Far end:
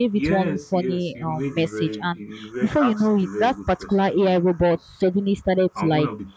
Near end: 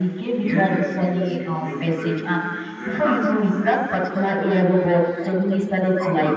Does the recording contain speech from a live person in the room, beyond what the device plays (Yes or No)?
No